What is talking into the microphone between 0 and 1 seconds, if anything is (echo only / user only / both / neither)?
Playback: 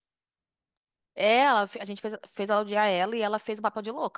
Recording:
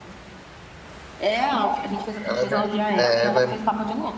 neither